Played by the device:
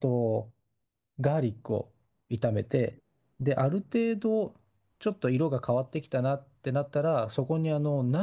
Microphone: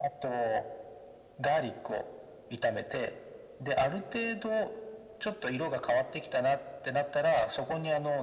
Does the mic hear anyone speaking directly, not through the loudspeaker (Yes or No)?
No